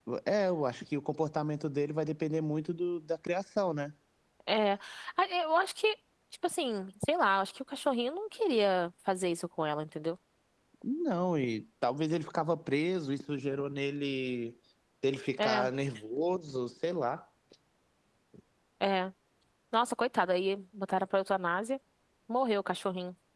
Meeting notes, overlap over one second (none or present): none